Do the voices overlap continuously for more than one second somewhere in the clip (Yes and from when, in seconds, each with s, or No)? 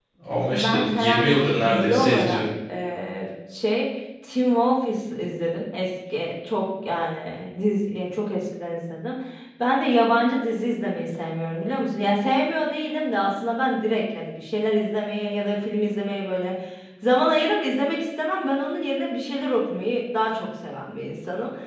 Yes, from 0.5 s